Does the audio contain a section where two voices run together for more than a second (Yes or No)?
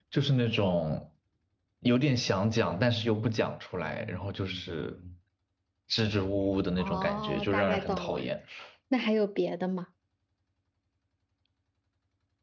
Yes